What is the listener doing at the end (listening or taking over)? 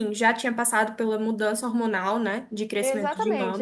taking over